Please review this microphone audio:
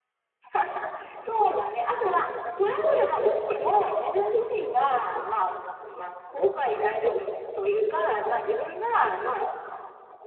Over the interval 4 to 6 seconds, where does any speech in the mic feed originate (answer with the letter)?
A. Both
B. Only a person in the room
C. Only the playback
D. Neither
C